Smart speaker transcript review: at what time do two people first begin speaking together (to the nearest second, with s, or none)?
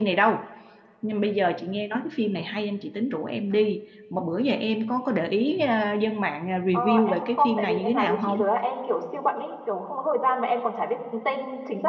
7 s